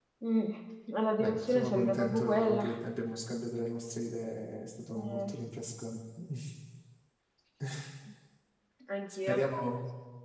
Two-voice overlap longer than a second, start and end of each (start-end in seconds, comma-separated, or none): 1.2-2.7